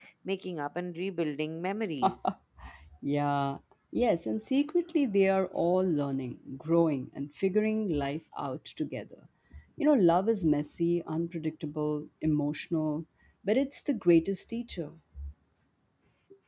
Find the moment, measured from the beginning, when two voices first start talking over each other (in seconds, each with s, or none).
none